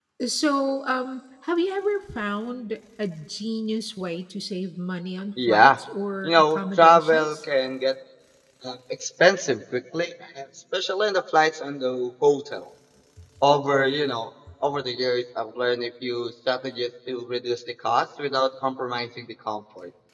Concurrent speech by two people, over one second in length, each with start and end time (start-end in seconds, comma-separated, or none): 6.2-7.4